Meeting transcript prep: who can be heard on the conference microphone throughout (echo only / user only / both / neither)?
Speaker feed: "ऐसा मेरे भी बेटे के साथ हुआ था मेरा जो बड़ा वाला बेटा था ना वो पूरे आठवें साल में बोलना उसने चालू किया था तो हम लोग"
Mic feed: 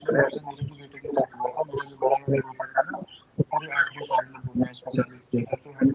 echo only